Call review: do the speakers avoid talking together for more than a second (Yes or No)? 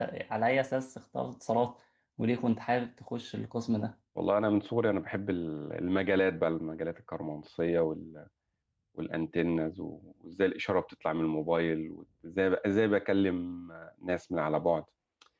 Yes